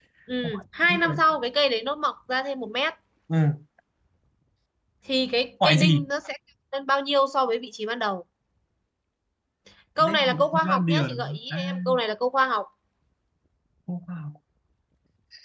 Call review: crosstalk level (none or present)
present